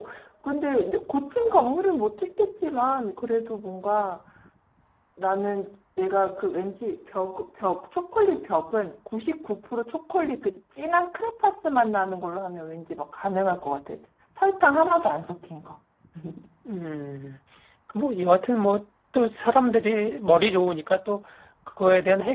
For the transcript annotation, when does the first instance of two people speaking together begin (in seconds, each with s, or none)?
none